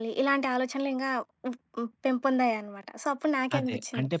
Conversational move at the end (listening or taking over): taking over